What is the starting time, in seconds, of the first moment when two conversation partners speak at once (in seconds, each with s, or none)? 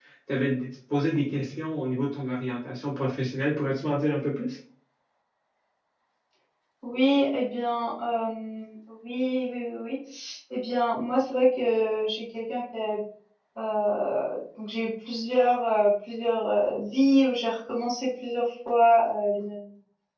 none